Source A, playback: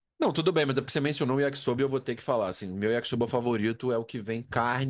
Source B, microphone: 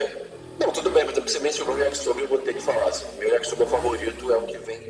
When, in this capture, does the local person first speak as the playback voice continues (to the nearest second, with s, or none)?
none